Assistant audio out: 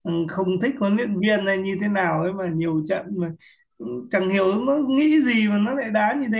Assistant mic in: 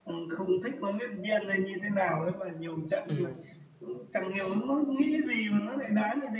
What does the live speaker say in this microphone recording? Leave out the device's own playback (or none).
ừ